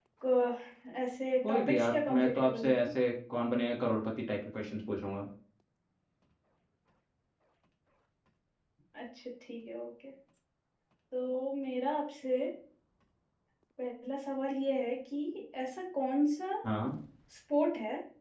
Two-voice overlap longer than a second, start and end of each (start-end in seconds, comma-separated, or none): 1.4-2.9